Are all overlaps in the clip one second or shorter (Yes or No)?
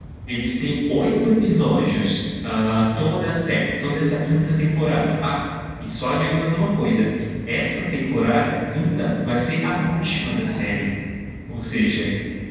No